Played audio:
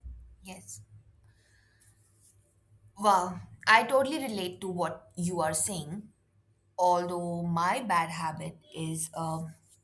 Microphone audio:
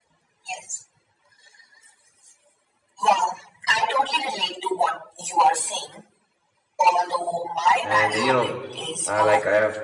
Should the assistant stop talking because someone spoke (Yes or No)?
Yes